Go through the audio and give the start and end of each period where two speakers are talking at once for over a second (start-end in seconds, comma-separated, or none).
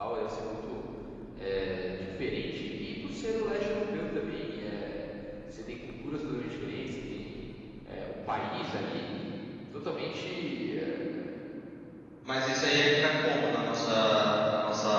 none